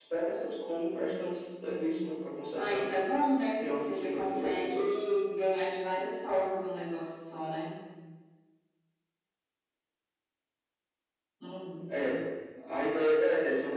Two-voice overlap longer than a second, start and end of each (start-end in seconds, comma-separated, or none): 3.6-4.8